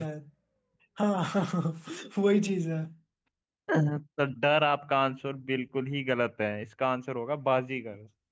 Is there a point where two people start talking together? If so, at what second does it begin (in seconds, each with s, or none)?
none